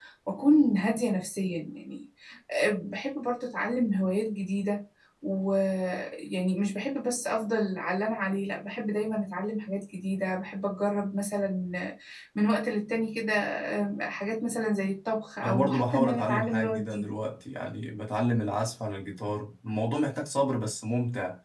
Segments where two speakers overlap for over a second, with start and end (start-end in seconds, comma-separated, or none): 15.4-17.1